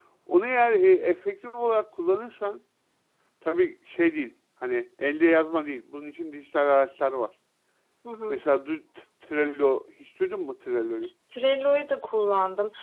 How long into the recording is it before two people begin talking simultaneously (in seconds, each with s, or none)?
none